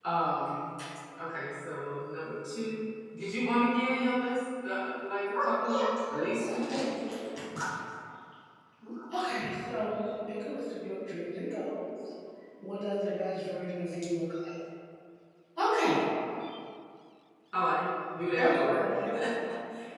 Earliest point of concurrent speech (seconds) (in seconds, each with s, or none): 5.4 s